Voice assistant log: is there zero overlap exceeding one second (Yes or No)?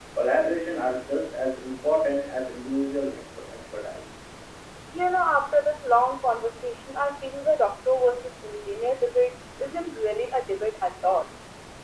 Yes